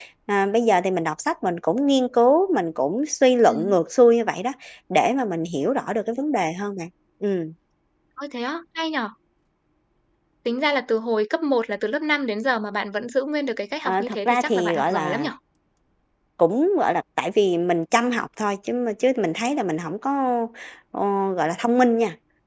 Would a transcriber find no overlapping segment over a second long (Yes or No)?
No